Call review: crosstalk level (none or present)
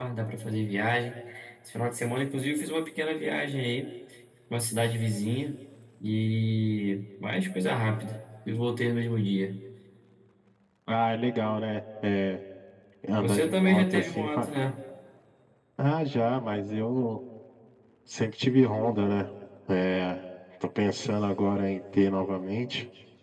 present